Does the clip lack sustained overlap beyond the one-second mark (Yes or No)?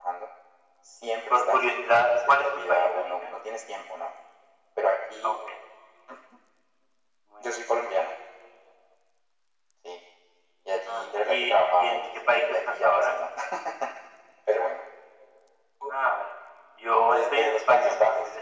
No